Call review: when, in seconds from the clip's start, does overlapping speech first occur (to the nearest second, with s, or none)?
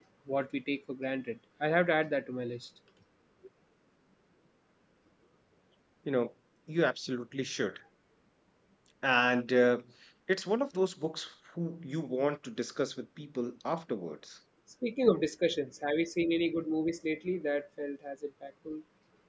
none